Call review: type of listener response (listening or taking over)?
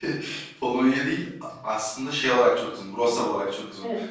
listening